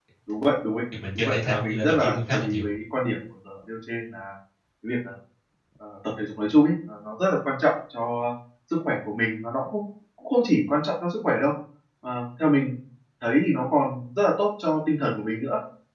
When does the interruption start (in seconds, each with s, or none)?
1.1 s